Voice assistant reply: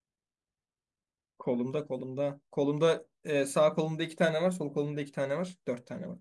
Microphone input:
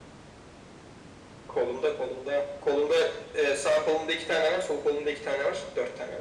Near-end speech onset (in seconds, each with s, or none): none